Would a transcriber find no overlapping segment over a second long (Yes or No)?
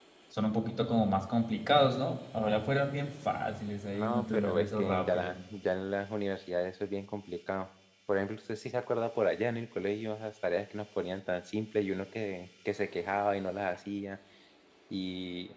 No